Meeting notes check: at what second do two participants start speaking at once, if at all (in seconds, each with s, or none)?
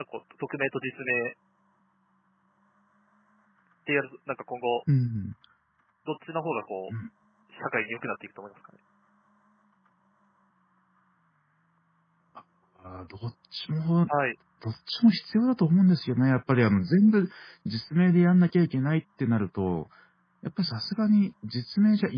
none